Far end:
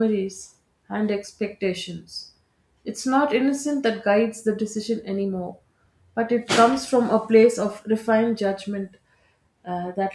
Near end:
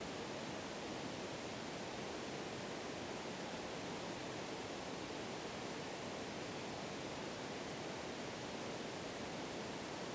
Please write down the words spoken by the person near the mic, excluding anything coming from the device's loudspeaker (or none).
none